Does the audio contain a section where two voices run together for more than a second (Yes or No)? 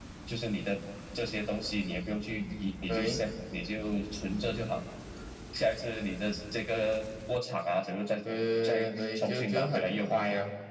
Yes